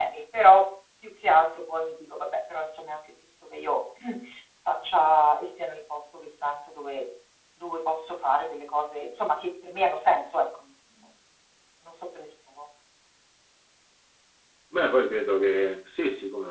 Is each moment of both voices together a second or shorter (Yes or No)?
Yes